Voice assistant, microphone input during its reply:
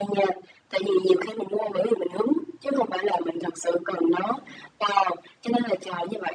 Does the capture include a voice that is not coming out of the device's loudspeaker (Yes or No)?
No